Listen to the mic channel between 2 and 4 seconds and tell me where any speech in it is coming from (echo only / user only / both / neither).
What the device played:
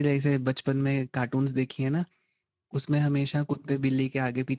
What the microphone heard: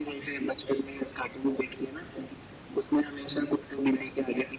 echo only